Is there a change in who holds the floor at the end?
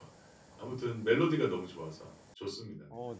Yes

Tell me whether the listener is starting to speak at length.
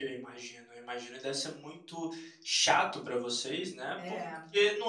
No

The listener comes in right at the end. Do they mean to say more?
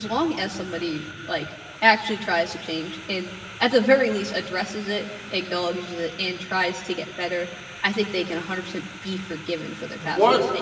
Yes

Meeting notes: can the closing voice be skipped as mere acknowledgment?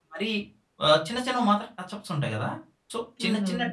Yes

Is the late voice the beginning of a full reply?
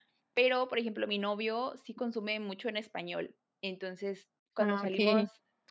No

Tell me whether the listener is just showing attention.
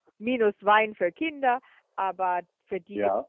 No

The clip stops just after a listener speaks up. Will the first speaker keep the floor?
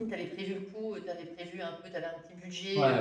No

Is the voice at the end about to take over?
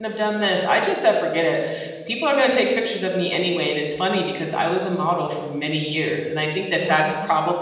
No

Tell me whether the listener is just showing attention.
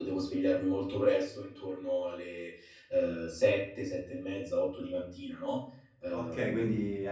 No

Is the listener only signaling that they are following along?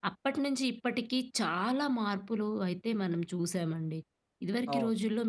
Yes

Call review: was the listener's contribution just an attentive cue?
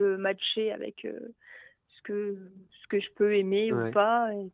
Yes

